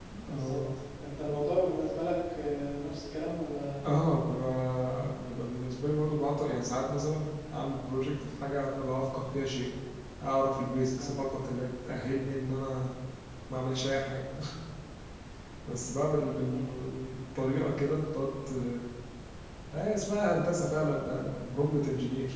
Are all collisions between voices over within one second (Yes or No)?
Yes